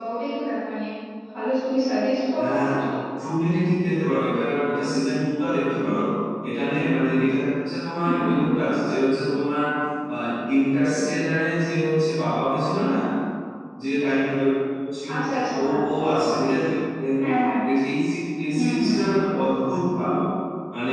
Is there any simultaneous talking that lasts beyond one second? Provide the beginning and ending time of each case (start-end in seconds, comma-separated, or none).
none